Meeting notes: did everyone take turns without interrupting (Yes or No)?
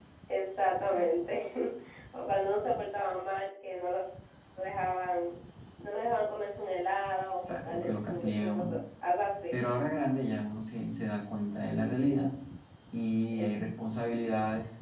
No